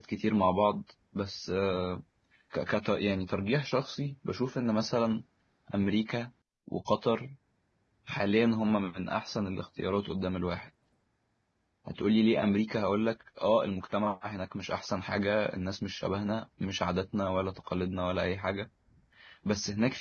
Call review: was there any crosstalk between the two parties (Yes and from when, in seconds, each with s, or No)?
No